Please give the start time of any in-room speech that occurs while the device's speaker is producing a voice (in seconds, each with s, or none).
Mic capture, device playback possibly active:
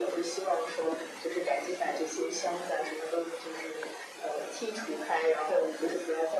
none